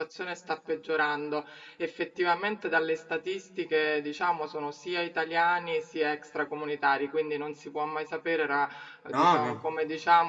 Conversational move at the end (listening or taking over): listening